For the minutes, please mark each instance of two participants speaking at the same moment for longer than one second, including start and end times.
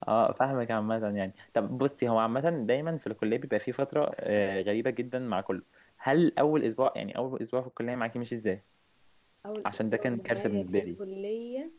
9.7-10.9

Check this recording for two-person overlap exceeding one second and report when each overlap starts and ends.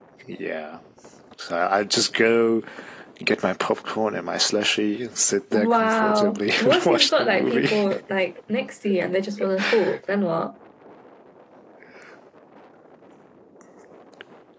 5.5-7.7

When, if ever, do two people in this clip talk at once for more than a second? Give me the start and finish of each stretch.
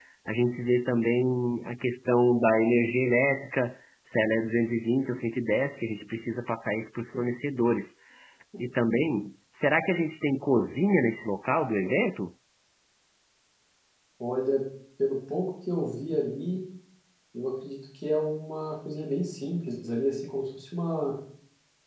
none

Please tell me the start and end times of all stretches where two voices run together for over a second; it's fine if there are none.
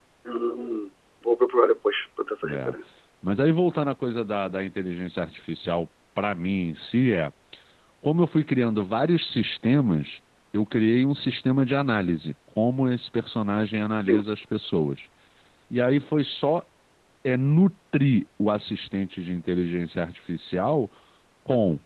none

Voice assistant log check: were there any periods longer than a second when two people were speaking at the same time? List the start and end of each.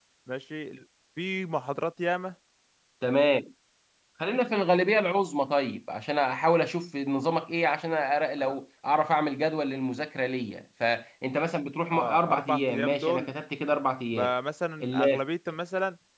11.9-13.3

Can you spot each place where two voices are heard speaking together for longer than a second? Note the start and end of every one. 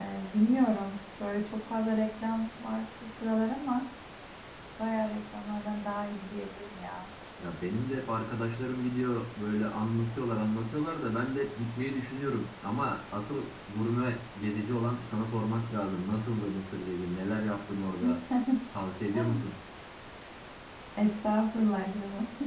none

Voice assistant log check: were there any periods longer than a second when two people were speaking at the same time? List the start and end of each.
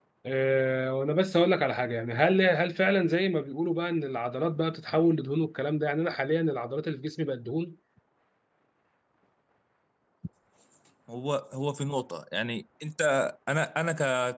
none

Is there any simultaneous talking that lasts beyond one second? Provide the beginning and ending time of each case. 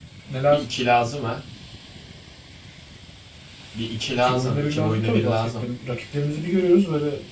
4.2-5.6

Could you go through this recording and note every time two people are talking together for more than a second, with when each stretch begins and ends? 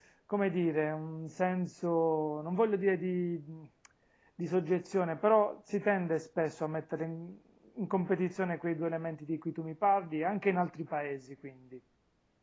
none

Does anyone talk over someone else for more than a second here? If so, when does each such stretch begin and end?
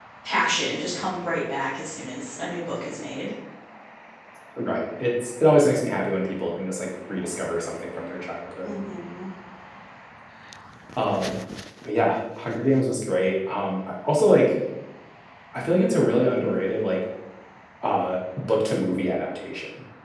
none

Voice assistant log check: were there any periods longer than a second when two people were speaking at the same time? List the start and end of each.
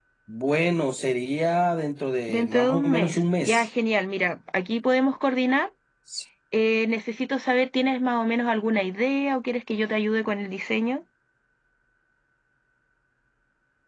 2.3-3.6

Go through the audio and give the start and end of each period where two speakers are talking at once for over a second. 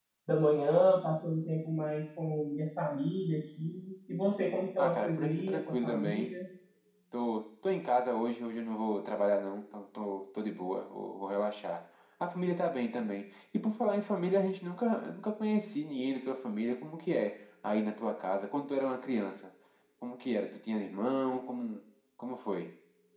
4.8-6.3

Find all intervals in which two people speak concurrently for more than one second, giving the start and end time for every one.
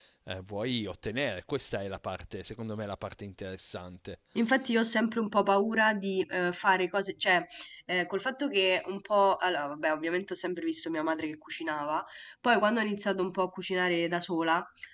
none

